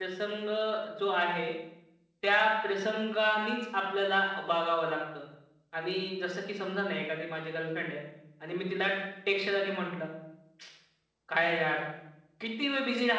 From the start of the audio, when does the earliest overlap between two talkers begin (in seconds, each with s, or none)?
none